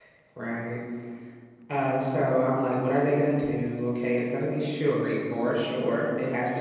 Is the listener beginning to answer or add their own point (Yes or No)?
No